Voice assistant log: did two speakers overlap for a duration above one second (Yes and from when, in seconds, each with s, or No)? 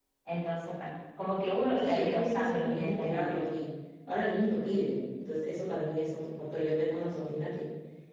Yes, from 1.8 s